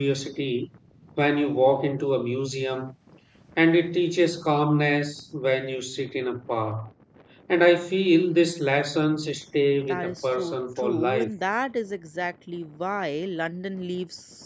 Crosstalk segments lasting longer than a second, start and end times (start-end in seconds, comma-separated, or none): 9.9-11.3